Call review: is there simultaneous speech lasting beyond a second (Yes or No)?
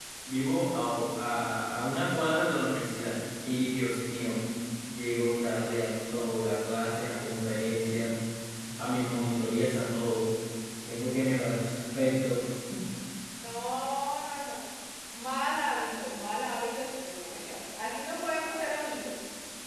No